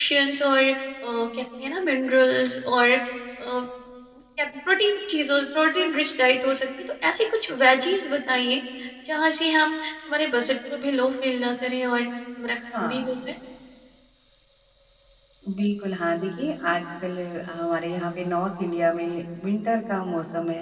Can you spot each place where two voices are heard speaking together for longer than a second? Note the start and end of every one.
none

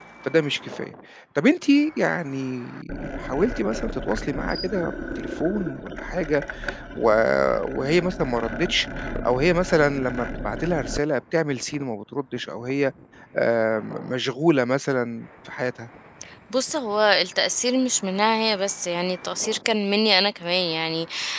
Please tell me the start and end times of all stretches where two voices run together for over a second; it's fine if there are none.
none

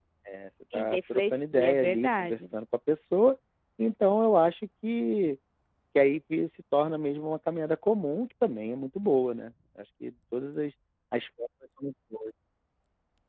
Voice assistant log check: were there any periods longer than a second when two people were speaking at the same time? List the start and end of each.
0.8-2.4

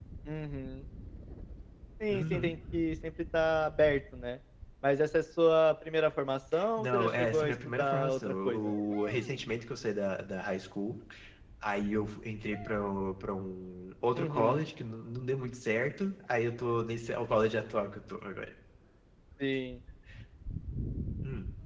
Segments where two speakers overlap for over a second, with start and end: 6.8-8.7

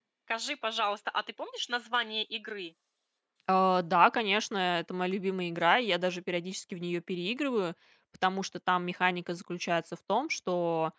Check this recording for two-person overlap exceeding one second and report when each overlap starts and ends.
none

